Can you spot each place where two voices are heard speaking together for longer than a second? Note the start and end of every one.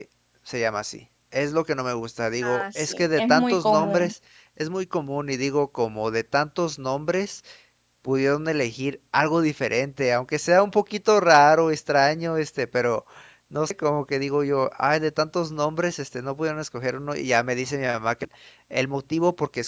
2.4-4.1

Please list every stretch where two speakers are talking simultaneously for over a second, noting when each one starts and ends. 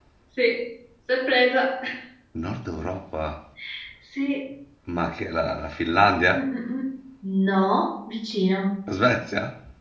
none

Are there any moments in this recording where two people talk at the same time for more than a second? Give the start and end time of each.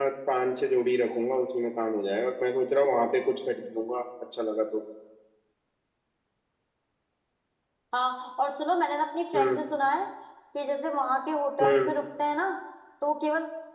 none

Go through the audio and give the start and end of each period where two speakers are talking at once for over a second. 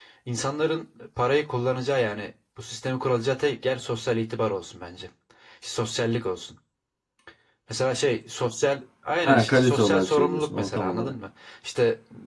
9.2-11.1

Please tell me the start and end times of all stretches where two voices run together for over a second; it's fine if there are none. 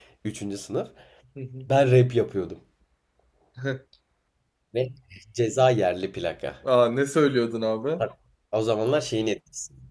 none

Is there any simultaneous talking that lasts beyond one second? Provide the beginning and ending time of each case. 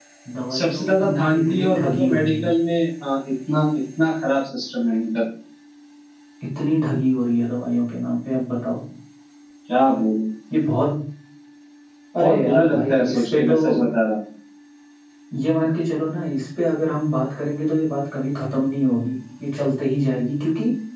0.6-2.5, 12.2-13.6

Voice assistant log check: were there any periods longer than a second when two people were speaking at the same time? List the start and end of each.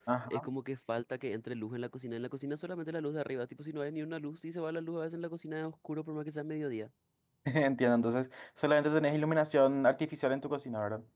none

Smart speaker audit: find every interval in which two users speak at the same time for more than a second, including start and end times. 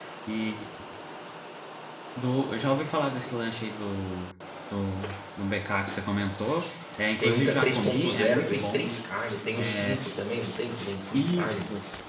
7.2-8.9

